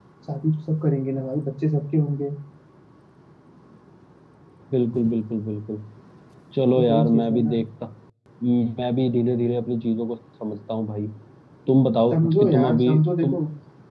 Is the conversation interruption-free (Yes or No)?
No